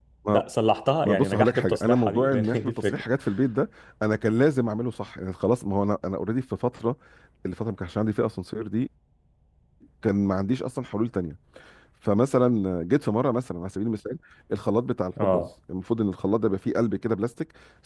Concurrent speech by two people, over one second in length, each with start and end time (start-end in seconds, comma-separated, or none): 1.1-3.0